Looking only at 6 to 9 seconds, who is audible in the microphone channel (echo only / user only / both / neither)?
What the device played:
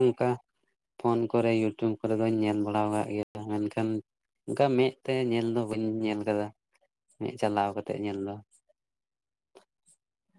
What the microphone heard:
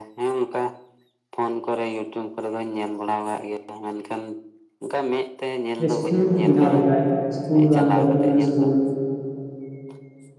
both